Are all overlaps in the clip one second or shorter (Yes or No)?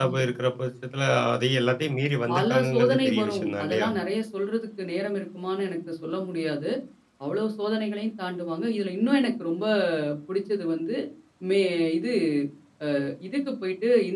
No